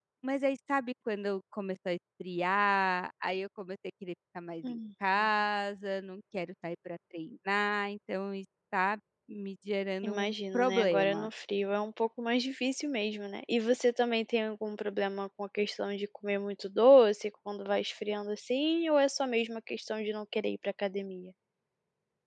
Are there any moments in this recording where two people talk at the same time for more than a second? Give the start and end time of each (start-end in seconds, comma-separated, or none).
10.0-11.3